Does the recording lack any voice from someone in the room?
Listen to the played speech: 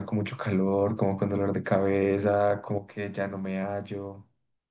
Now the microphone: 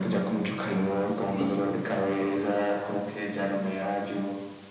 No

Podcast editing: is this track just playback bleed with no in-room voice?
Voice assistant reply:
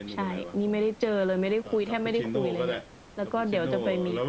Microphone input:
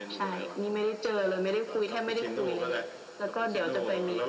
Yes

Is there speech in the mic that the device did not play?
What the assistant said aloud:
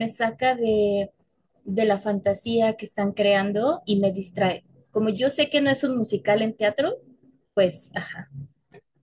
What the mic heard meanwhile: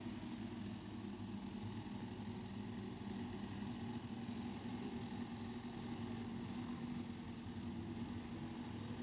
No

